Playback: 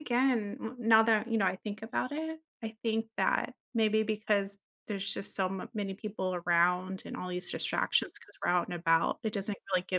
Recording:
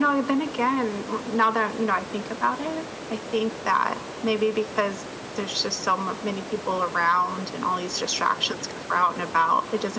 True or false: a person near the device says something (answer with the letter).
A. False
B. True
A